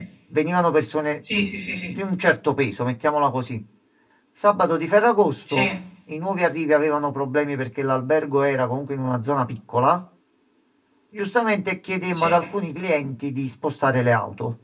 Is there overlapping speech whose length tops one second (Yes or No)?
No